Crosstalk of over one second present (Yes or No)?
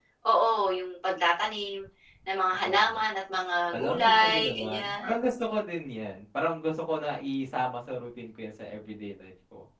Yes